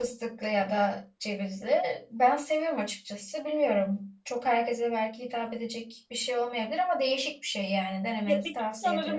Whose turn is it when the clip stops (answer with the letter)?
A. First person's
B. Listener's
B